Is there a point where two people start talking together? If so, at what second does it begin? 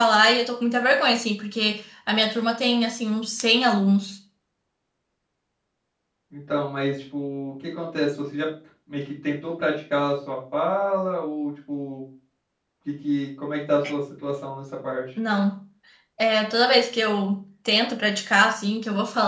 none

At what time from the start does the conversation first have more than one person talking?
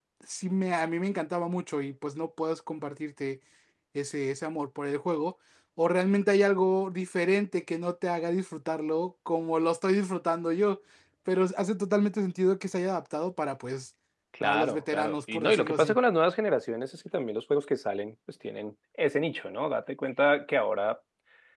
14.4 s

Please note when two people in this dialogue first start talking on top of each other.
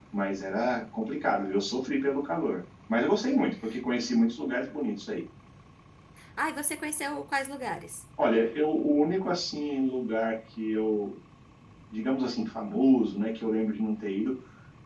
none

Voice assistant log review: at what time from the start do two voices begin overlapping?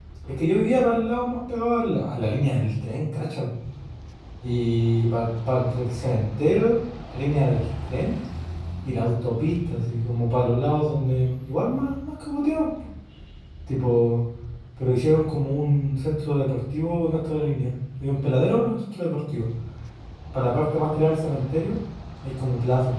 none

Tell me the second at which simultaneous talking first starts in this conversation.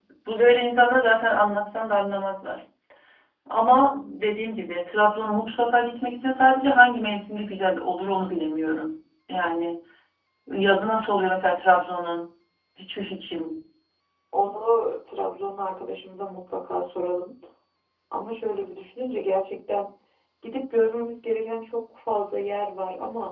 none

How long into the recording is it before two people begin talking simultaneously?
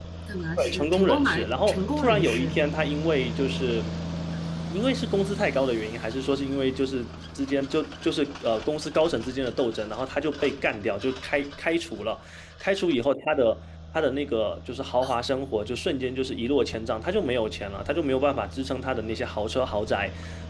0.6 s

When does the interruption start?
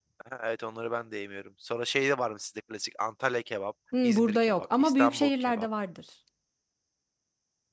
3.9 s

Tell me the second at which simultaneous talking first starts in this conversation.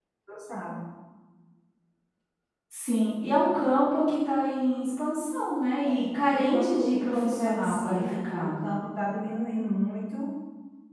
5.8 s

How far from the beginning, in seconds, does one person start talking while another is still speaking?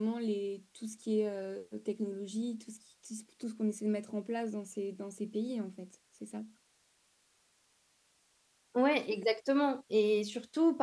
none

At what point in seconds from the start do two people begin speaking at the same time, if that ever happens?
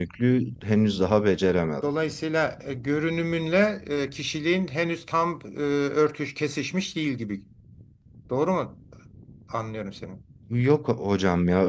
none

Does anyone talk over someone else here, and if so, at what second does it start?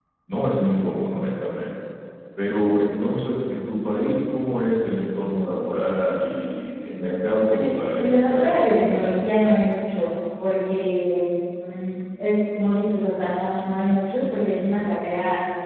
7.5 s

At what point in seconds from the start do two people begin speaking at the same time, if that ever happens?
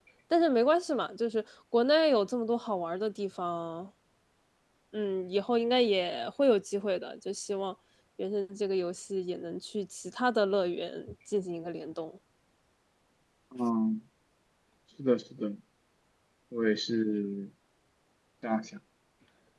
none

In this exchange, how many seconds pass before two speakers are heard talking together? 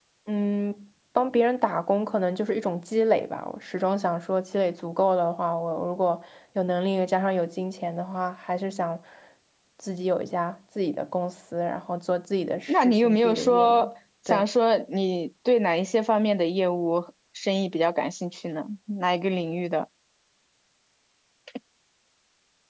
12.7 s

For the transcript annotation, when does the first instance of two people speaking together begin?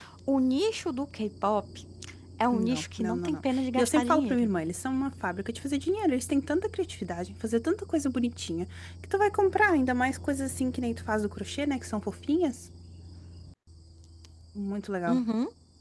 2.5 s

